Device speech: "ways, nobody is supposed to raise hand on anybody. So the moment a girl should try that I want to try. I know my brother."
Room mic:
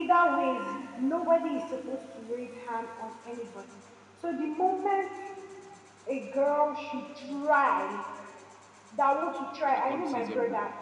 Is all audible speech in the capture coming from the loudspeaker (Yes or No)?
No